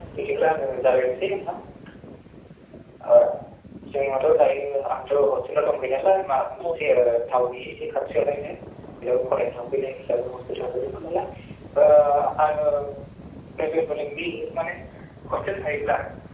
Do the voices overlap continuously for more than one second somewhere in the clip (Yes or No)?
No